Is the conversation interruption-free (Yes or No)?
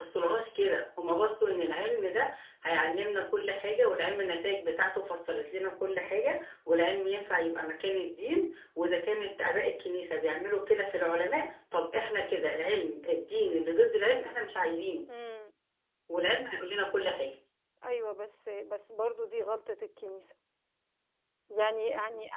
Yes